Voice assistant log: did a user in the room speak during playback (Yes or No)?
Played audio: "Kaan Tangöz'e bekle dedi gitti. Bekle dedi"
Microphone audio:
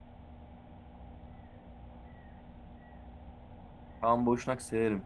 Yes